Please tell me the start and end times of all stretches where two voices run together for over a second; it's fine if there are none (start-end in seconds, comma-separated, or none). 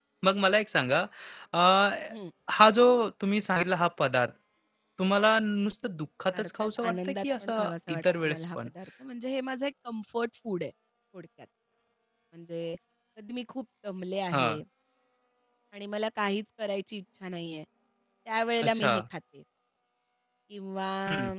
6.4-8.7